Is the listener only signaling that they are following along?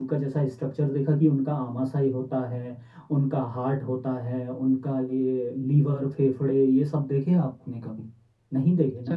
No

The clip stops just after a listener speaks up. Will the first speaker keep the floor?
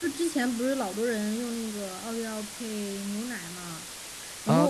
No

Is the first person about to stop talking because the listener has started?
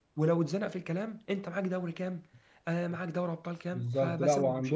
Yes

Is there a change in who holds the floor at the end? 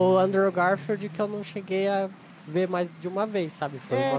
Yes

